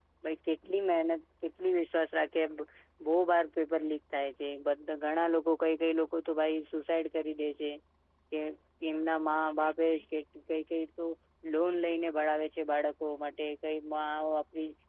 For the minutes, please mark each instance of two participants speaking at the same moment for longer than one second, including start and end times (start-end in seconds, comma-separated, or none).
none